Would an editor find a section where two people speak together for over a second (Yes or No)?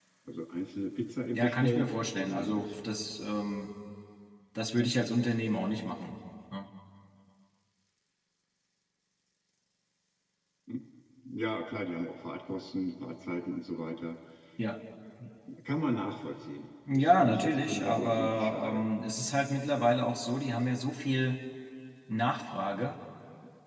Yes